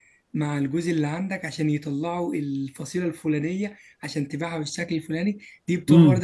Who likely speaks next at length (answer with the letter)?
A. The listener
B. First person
B